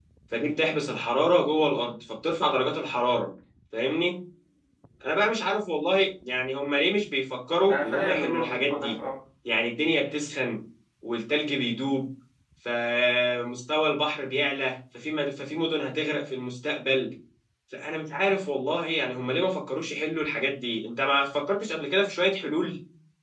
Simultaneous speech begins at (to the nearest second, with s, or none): 8 s